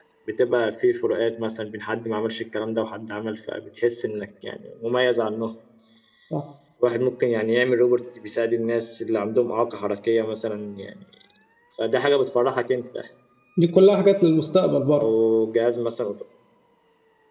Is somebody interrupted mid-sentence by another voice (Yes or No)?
No